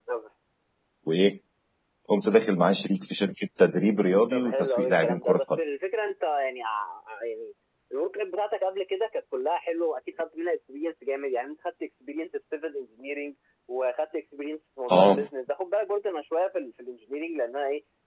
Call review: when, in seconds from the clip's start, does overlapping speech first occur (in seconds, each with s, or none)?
4.3 s